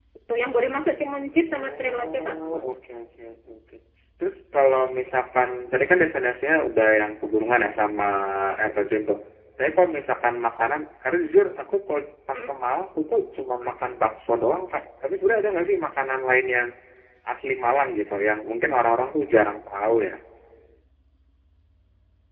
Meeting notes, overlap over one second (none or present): present